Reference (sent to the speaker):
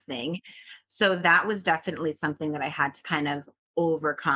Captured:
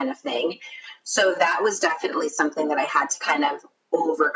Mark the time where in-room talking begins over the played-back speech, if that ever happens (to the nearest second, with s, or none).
none